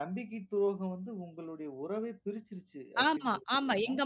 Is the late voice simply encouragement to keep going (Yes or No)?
No